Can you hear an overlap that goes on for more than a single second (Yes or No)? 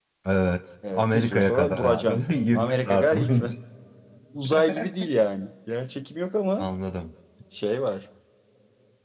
Yes